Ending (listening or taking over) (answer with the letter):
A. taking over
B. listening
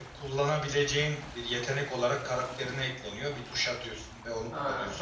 B